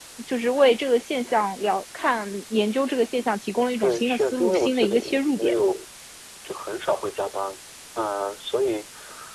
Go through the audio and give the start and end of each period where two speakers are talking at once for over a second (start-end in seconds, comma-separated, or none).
3.8-5.5